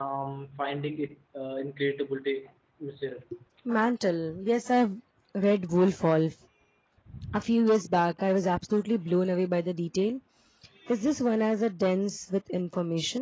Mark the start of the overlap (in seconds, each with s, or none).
none